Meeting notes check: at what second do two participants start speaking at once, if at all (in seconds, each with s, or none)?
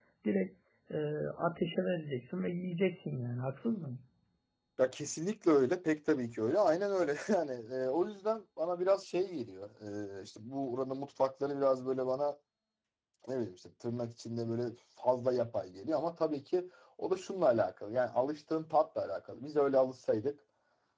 none